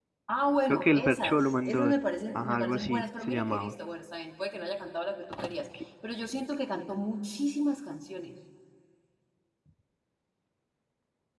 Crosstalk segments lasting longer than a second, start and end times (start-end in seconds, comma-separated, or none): 0.7-1.9, 2.4-3.7